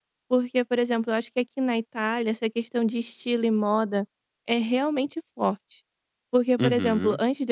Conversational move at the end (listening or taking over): listening